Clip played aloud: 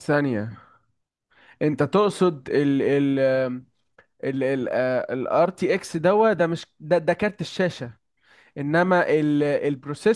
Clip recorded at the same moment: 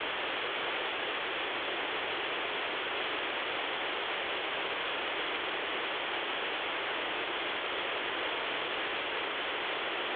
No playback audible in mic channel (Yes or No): Yes